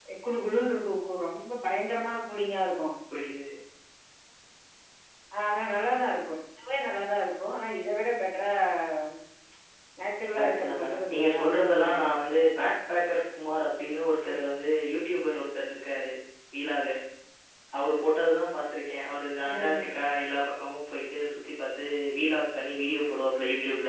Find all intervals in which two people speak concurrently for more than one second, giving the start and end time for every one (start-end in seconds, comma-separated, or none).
10.3-12.1